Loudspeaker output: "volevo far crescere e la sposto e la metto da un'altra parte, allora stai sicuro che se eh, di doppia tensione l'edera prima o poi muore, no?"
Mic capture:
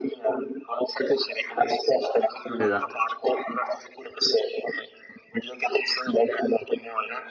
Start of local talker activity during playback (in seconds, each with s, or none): 2.6 s